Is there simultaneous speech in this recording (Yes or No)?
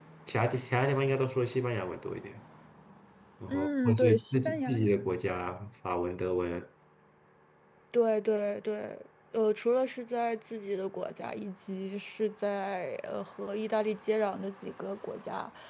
Yes